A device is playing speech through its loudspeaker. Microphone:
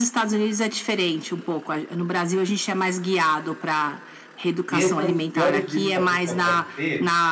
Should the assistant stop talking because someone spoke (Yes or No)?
Yes